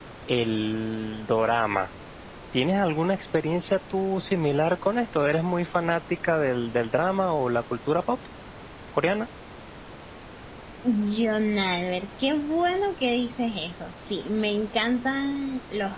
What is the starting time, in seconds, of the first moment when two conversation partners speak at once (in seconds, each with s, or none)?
none